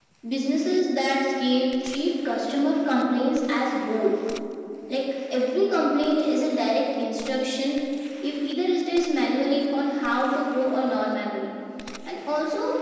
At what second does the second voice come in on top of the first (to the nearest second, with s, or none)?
none